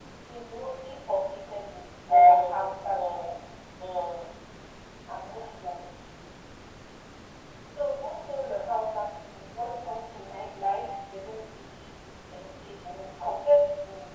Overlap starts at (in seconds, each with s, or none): 2.1 s